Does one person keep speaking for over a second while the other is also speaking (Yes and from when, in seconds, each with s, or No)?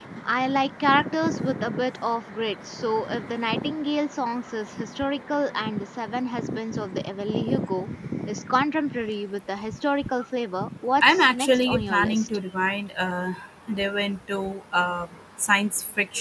Yes, from 11.0 s